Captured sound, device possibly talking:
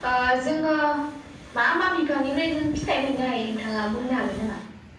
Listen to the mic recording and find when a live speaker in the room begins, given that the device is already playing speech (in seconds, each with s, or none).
none